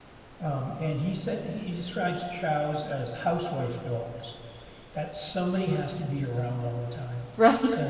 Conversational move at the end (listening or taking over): listening